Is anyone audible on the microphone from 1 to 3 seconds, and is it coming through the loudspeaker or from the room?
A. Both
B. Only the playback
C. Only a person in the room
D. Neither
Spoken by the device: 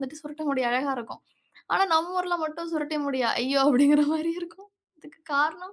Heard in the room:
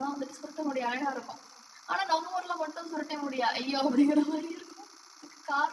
B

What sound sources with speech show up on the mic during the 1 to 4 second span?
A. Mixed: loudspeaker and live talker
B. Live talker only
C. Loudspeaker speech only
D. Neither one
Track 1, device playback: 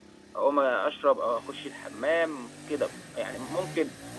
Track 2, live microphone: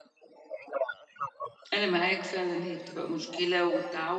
A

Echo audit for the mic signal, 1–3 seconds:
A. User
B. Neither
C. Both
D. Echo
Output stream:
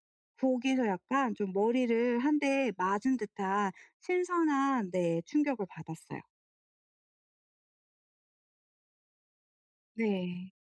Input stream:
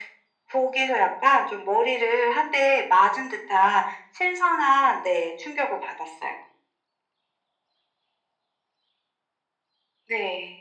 D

